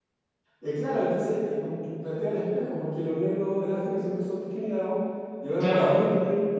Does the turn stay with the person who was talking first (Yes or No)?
Yes